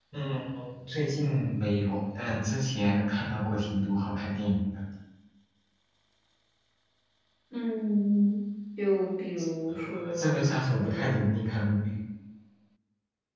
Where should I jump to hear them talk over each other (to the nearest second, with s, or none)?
10 s